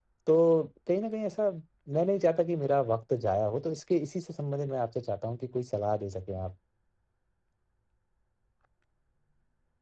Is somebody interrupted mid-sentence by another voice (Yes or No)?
No